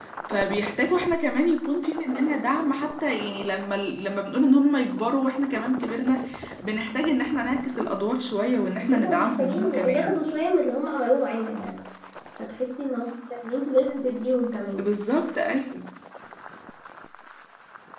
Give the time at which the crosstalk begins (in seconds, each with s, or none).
8.8 s